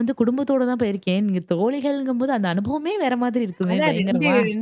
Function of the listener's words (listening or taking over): taking over